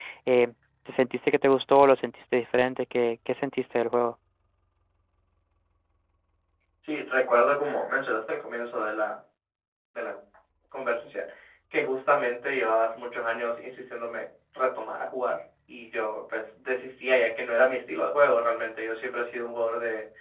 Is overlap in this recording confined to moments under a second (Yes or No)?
Yes